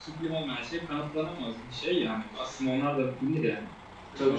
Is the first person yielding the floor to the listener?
Yes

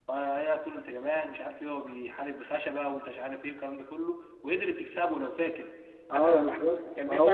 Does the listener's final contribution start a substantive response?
Yes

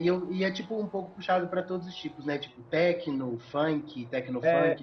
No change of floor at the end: No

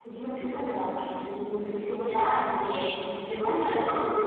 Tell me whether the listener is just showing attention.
Yes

